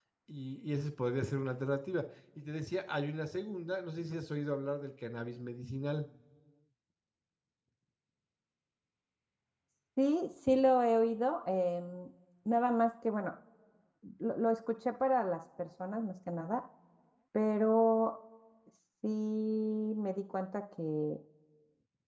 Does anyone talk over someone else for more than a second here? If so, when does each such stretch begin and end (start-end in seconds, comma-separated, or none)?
none